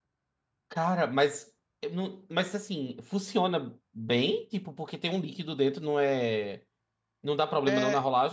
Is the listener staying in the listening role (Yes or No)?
No